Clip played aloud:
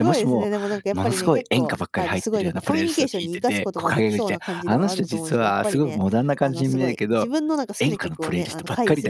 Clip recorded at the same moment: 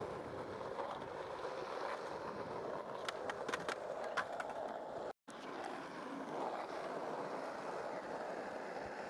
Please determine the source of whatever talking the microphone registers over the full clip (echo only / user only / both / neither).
neither